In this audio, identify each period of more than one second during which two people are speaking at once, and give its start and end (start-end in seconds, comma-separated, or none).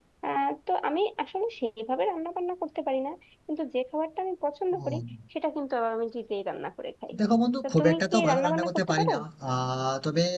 7.6-9.1